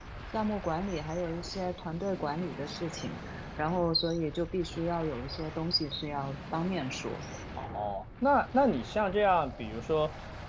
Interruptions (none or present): none